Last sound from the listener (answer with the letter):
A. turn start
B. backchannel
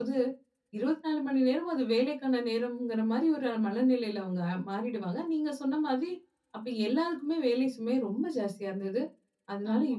B